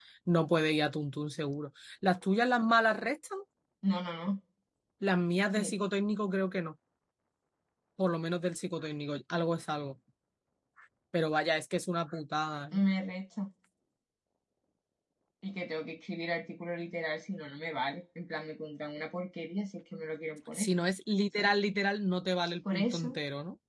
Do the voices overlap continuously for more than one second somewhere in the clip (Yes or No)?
No